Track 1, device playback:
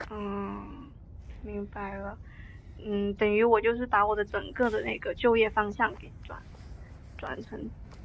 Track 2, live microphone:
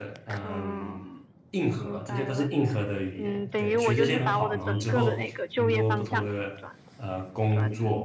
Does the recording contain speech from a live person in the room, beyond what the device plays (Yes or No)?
Yes